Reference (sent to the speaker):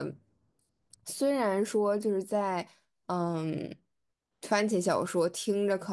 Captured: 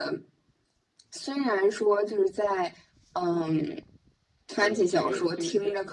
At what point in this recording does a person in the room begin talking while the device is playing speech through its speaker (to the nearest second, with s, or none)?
5 s